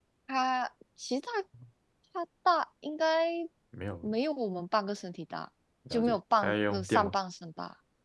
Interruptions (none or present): present